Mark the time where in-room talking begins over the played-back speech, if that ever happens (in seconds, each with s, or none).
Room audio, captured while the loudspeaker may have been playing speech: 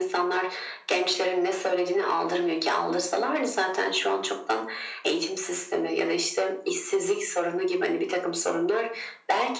none